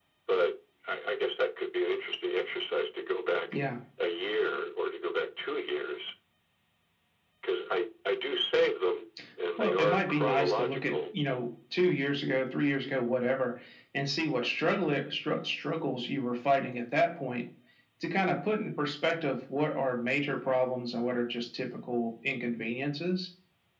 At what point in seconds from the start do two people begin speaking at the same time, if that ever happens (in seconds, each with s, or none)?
9.6 s